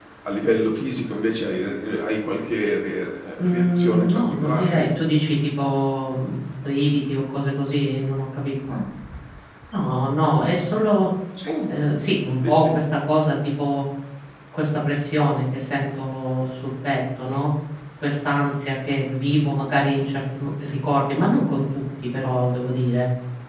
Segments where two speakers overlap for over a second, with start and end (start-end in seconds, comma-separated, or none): 3.4-4.9